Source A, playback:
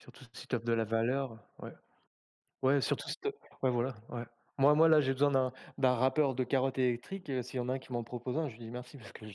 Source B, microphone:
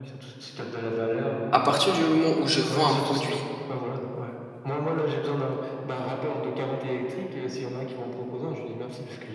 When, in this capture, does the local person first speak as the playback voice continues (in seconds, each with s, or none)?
1.5 s